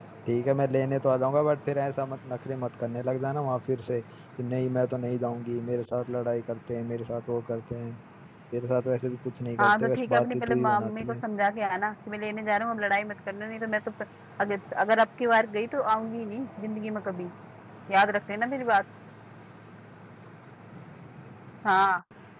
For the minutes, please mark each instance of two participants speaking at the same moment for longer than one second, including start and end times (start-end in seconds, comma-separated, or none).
9.6-11.2